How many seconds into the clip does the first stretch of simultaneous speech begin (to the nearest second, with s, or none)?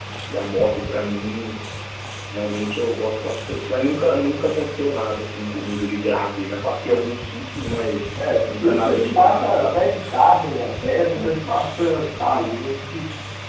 8 s